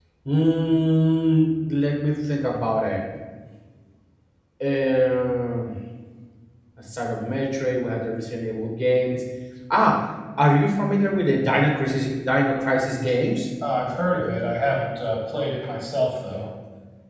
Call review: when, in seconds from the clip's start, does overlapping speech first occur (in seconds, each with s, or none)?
none